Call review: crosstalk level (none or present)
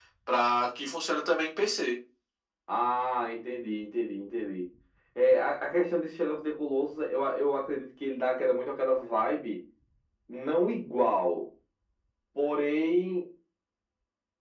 none